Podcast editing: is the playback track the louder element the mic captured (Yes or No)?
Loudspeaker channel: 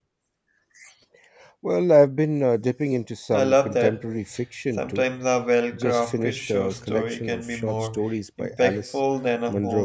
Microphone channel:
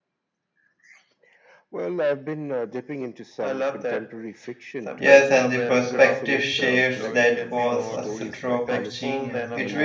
No